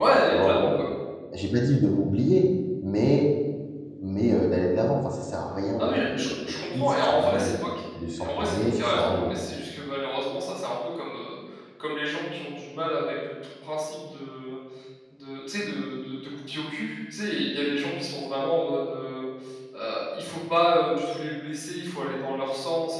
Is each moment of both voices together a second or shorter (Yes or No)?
No